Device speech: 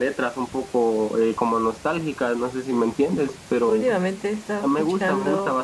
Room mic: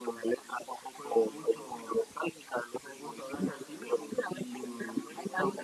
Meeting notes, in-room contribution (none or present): present